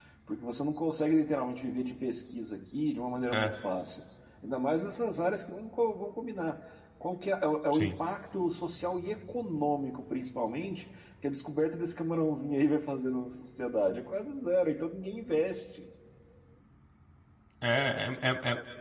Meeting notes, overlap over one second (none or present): none